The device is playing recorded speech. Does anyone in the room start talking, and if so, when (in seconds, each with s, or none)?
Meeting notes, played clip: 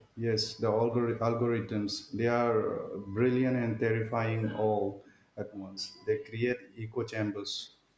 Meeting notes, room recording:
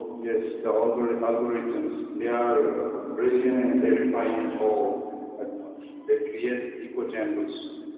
none